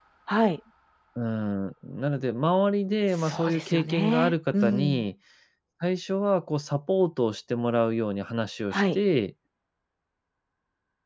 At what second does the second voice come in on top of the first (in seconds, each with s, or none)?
3.2 s